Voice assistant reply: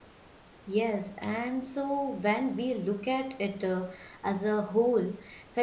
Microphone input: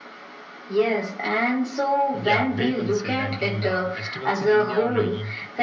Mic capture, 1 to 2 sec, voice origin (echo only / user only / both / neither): echo only